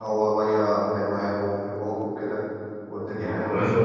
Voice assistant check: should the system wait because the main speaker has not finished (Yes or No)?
No